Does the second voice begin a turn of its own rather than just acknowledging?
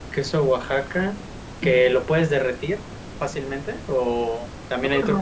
No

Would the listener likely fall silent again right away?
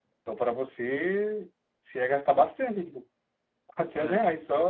Yes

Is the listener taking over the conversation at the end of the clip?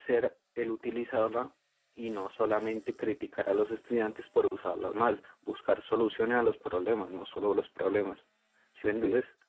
Yes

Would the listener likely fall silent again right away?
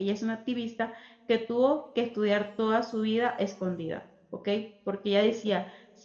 Yes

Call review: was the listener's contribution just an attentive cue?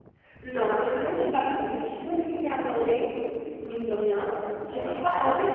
Yes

